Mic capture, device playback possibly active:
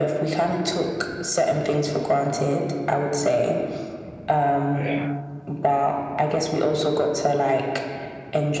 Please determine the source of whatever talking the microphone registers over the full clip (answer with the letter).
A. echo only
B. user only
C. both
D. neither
C